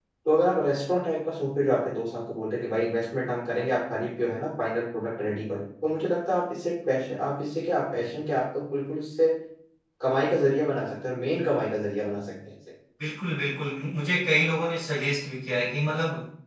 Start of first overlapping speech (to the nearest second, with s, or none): none